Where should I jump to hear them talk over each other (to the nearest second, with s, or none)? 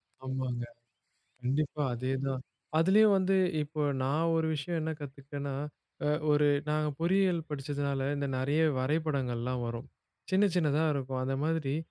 none